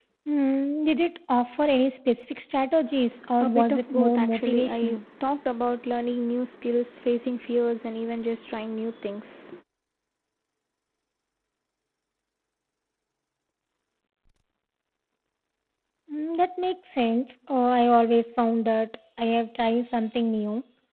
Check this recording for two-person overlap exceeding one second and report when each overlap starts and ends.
3.4-5.0

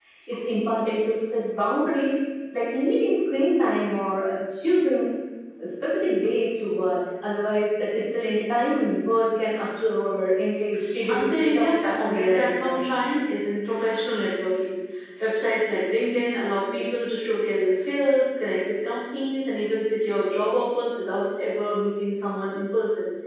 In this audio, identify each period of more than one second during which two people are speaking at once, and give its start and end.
11.1-12.8

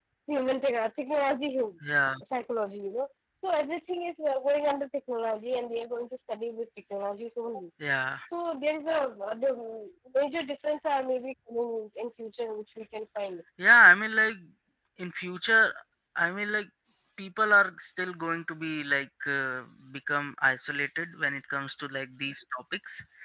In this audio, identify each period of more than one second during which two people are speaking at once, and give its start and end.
none

